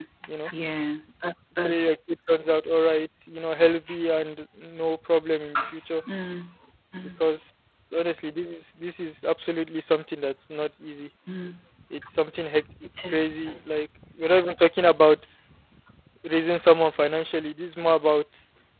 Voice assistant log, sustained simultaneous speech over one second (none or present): none